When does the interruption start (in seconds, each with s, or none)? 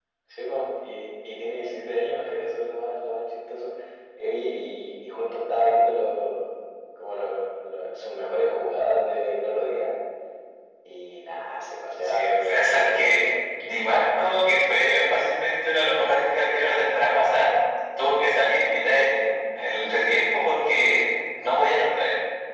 12.0 s